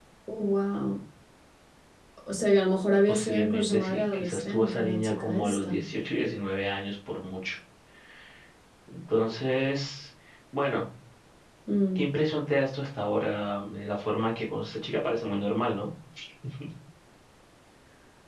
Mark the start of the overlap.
3.1 s

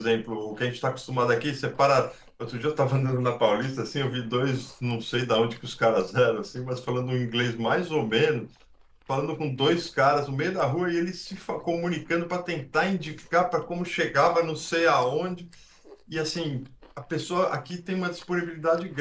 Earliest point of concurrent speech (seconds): none

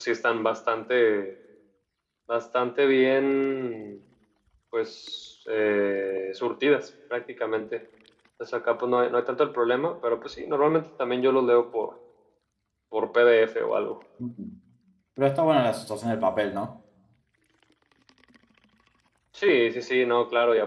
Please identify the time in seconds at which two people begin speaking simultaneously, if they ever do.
none

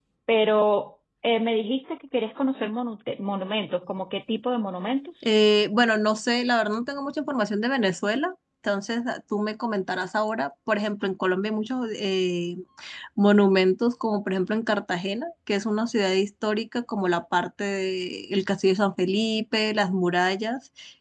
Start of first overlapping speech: none

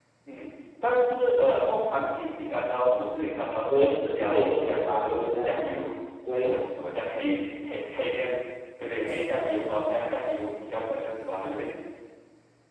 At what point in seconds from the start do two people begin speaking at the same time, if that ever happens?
3.7 s

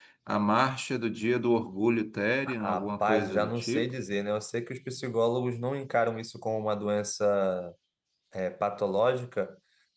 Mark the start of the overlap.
2.5 s

